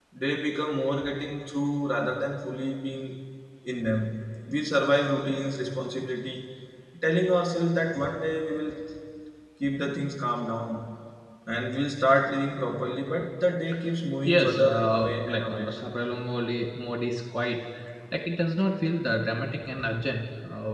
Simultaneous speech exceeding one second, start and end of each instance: 14.2-15.8

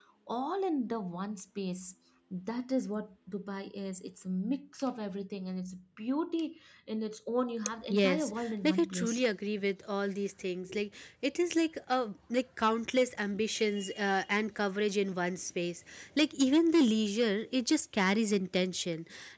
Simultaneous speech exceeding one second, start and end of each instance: 7.9-9.2

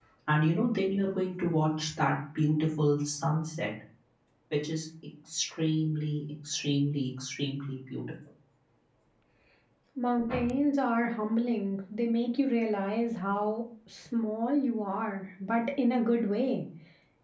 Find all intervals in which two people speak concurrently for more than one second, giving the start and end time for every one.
none

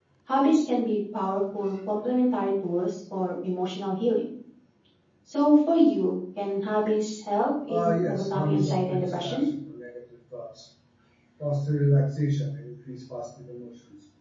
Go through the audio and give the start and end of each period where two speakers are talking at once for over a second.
7.7-9.4

